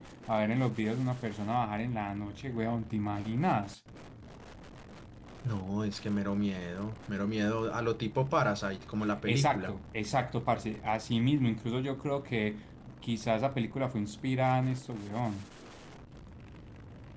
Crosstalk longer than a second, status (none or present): none